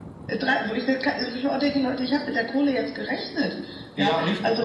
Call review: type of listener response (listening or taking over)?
taking over